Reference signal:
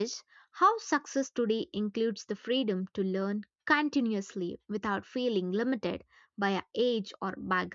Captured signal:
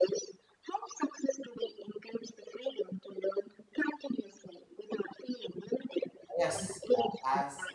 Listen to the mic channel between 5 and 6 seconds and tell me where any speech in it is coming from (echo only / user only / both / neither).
echo only